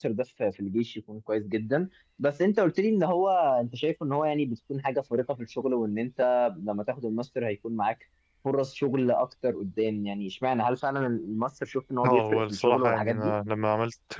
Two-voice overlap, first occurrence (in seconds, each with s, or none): 12.0 s